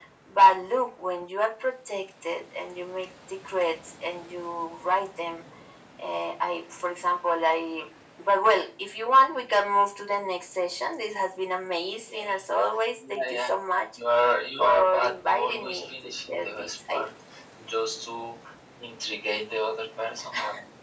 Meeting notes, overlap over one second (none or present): present